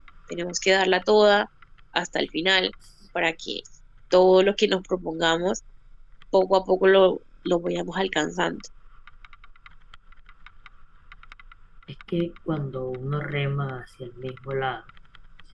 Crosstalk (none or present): none